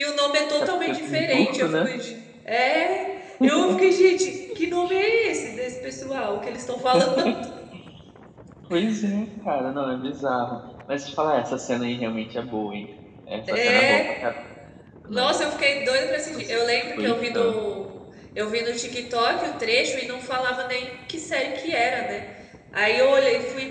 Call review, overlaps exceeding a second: present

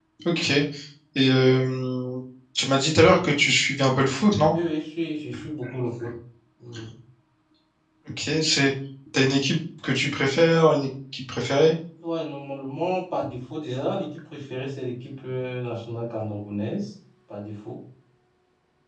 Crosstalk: none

